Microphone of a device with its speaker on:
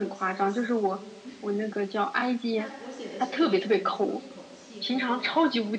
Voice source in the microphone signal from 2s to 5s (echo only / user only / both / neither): both